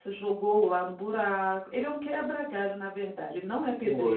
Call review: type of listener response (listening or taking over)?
taking over